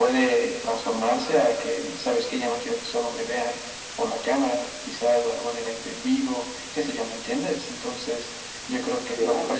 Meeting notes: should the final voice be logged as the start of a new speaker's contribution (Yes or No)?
No